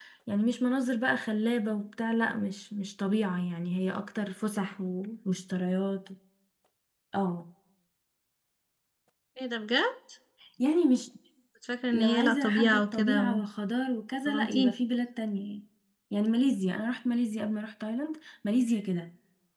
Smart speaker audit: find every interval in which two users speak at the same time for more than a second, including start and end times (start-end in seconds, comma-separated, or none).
11.9-13.4